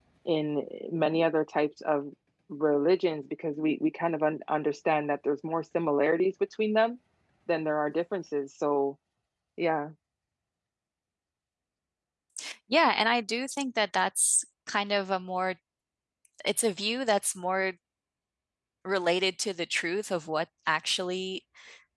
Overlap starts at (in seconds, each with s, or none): none